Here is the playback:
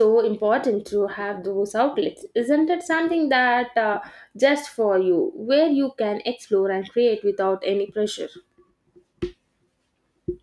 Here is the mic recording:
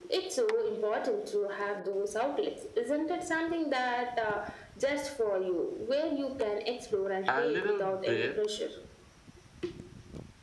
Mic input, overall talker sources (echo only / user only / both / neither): both